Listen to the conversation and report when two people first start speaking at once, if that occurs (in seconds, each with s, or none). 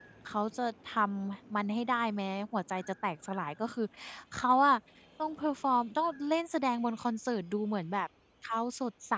none